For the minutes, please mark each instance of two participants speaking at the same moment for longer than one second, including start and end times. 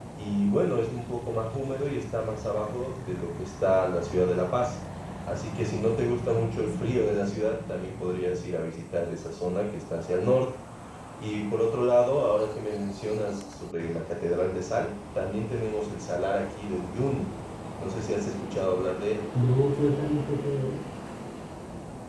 none

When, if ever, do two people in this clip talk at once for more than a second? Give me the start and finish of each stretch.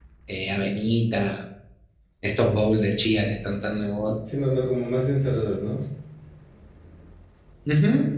none

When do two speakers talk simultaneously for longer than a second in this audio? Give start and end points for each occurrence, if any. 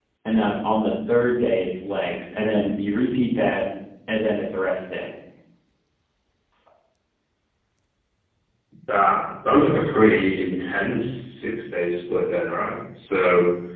none

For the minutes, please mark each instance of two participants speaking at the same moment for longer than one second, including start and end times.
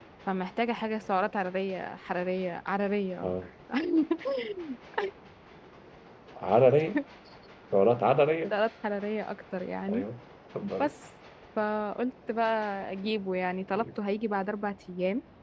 none

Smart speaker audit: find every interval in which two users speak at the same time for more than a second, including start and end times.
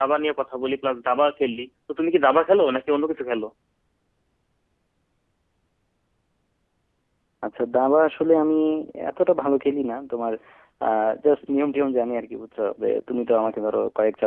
none

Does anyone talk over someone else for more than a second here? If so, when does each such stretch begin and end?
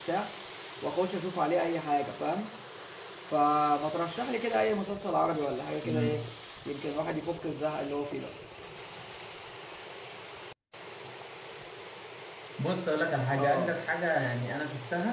none

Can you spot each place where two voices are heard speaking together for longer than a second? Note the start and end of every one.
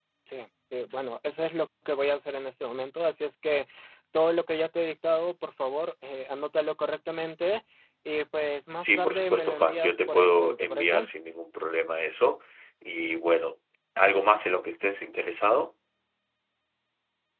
8.8-11.1

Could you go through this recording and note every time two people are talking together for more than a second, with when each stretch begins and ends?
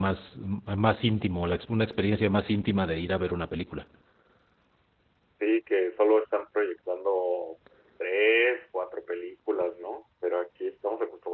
none

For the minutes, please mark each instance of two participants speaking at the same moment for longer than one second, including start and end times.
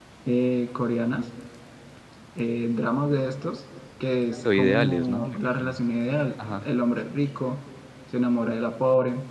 4.3-5.8

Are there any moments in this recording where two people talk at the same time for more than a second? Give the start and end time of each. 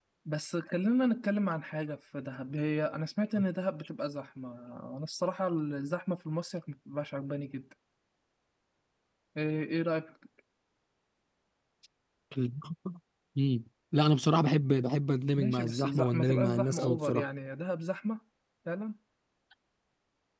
15.4-17.2

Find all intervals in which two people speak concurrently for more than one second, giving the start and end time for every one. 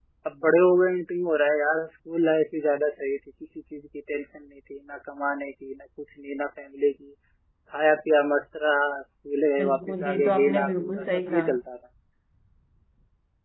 9.6-11.6

